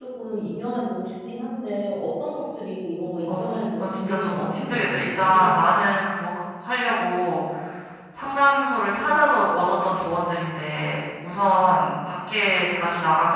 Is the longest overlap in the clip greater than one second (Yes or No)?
Yes